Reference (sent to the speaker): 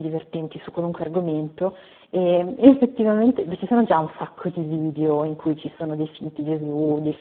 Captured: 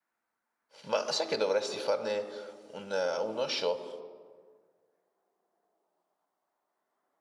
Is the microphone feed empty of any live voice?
No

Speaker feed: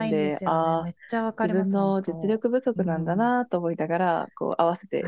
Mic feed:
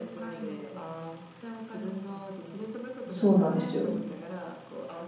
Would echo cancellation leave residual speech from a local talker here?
Yes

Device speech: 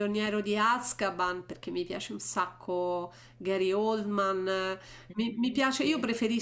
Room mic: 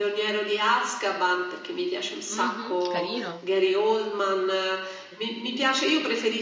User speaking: Yes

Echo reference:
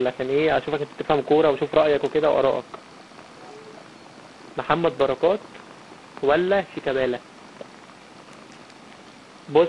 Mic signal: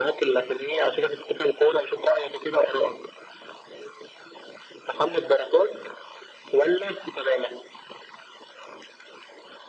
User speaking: No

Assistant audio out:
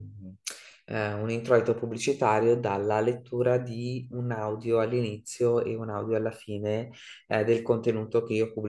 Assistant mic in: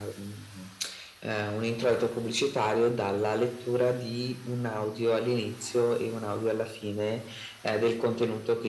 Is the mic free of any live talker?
Yes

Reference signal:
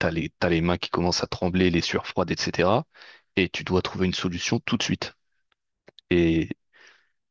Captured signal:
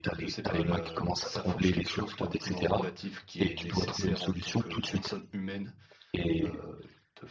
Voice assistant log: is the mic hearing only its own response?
No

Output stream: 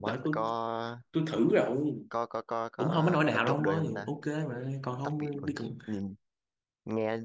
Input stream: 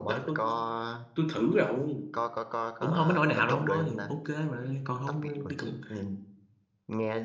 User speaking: No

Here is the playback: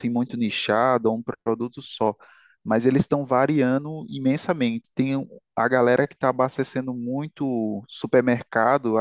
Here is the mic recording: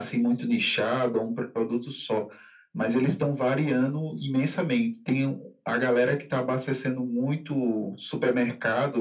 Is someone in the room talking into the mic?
No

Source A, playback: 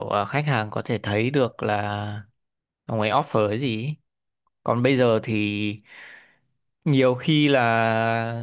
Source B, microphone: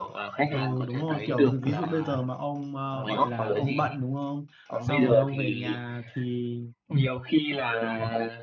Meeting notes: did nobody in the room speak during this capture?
No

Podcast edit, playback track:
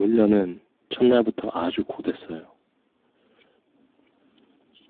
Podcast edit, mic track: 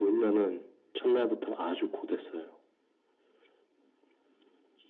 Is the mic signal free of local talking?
Yes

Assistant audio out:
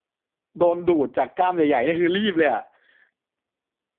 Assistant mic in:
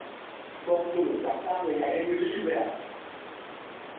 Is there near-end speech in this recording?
No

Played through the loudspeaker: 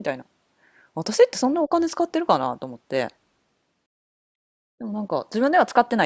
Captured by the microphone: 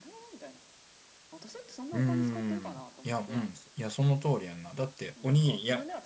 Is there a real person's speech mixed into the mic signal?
Yes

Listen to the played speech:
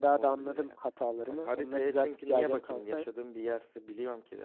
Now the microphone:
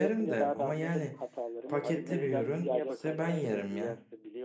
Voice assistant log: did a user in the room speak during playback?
Yes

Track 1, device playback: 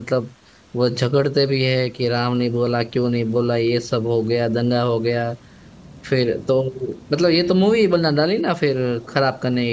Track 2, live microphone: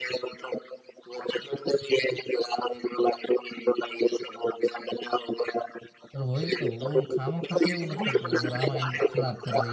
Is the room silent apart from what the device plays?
No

